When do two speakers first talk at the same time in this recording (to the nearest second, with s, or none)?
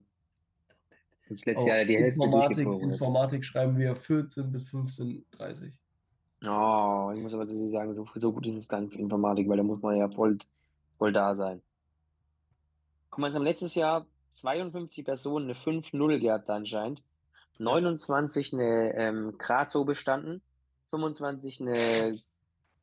2 s